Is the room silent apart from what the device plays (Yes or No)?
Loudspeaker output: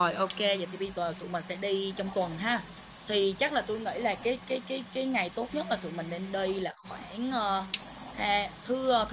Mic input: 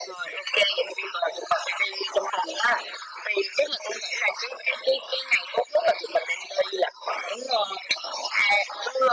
Yes